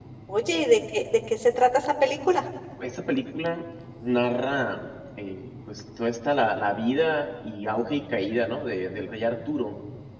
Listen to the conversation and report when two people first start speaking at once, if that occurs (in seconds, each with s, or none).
none